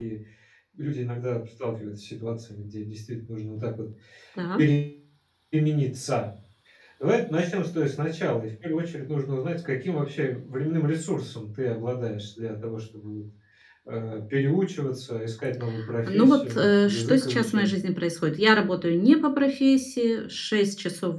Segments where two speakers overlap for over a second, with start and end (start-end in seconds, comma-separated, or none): 16.1-17.7